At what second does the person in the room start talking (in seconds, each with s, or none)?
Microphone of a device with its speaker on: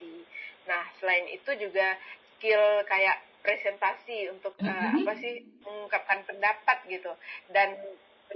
4.6 s